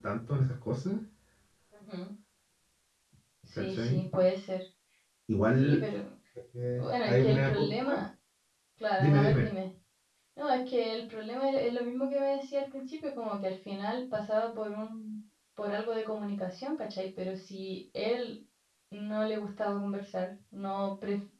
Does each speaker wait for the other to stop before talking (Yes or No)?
No